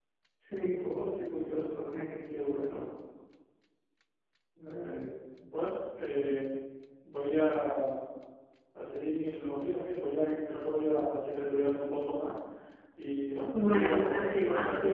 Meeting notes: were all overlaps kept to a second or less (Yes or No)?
No